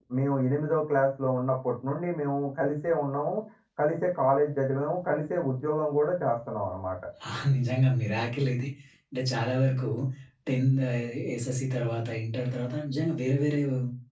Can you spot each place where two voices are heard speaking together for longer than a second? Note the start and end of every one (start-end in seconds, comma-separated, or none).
none